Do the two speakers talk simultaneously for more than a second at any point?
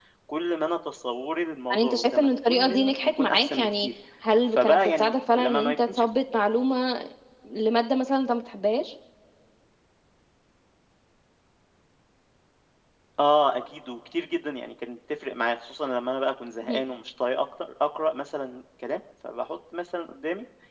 Yes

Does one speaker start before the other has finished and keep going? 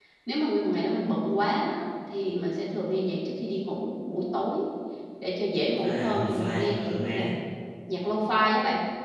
Yes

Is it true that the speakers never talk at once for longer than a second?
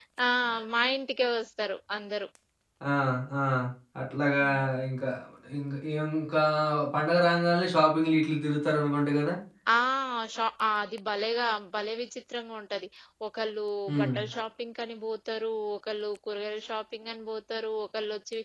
Yes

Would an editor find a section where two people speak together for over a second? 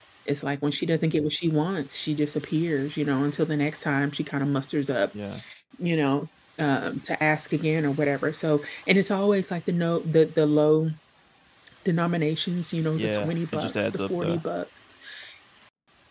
Yes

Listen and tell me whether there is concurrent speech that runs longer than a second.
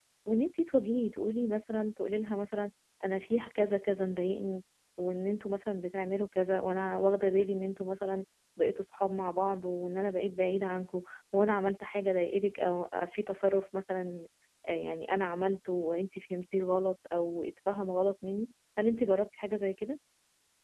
No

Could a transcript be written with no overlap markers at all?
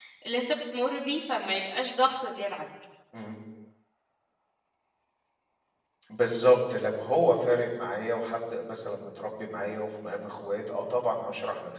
Yes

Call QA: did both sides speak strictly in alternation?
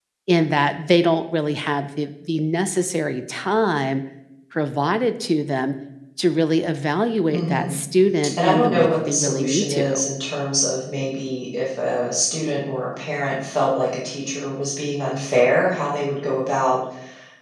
No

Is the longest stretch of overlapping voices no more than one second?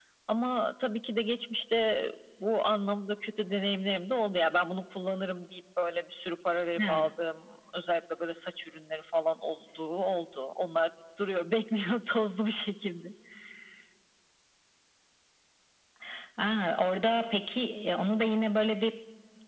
Yes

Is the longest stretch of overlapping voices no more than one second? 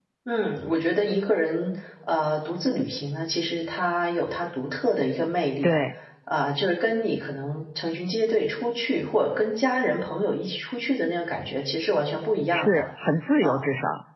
Yes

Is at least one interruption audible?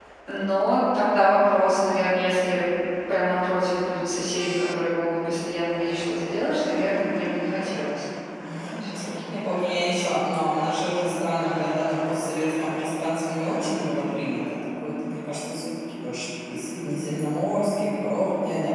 No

